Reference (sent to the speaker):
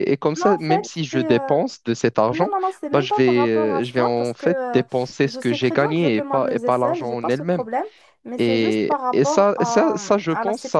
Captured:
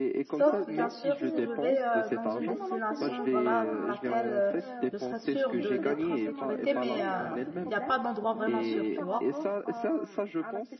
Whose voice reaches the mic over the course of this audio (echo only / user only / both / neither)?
both